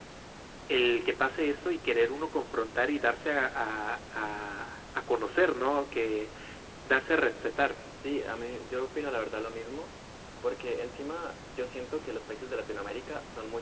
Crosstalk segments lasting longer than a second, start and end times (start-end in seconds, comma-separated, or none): none